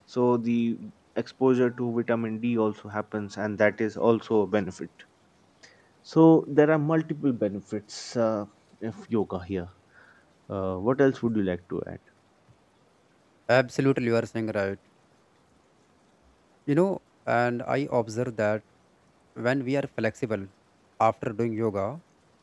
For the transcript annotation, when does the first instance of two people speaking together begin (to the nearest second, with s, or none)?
none